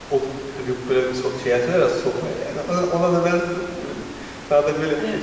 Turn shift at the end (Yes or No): No